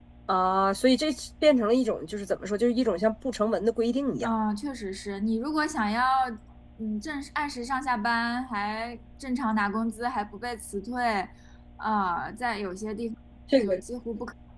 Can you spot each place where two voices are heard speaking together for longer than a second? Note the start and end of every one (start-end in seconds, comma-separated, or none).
none